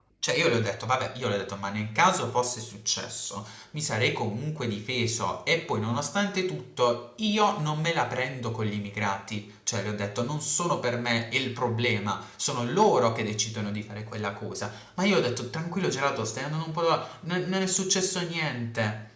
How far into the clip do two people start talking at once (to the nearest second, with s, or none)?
none